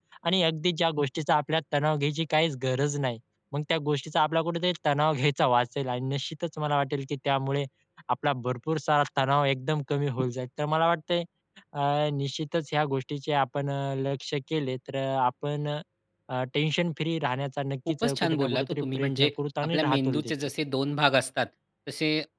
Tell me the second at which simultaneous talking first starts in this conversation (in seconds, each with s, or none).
17.9 s